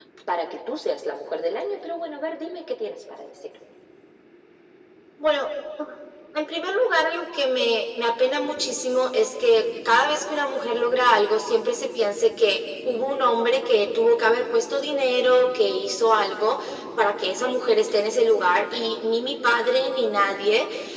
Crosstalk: none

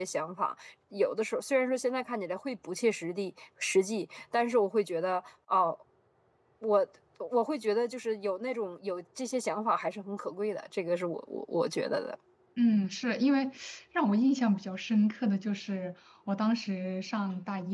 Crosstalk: none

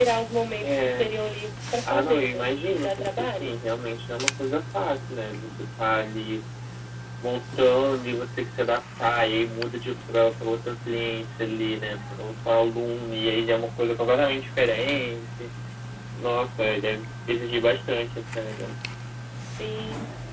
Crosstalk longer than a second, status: present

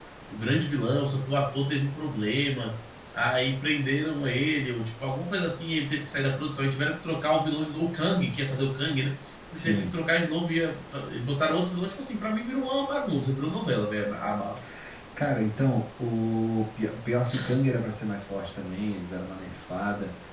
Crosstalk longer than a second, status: none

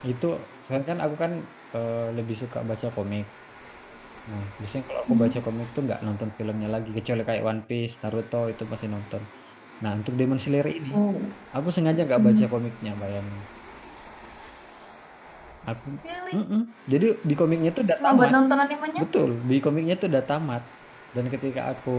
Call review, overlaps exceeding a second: none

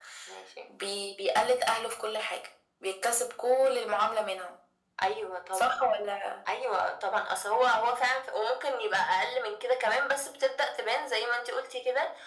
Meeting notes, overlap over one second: none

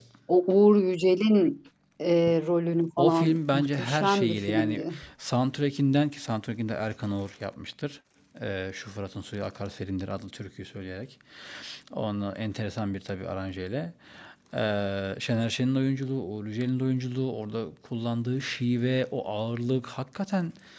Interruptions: present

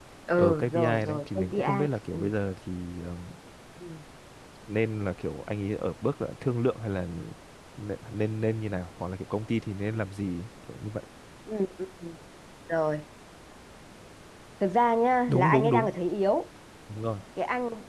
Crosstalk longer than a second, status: present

